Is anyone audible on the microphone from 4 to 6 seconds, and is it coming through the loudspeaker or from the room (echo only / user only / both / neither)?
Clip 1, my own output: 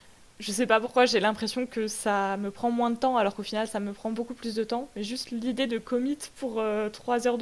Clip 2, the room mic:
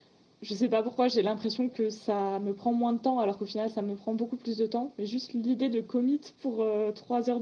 echo only